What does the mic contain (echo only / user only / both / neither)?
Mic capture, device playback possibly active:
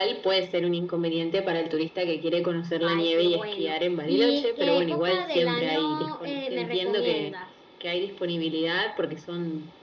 both